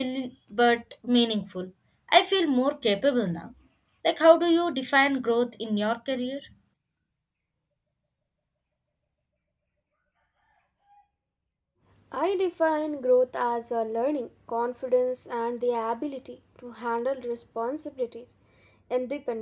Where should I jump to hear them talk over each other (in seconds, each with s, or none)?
none